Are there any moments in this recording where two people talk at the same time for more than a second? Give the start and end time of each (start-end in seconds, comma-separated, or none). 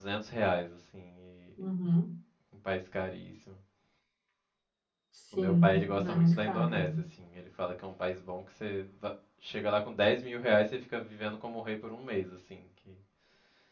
5.3-6.8